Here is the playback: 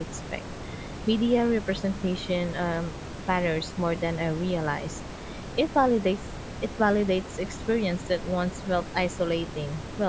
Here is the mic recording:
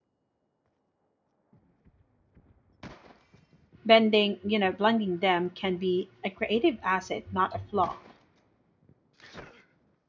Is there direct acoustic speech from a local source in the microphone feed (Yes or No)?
Yes